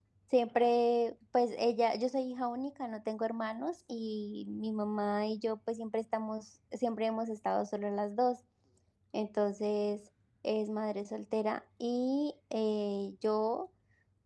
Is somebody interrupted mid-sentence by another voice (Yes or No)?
No